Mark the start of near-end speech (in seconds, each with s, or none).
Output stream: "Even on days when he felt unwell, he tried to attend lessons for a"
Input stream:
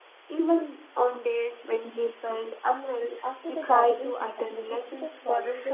3.2 s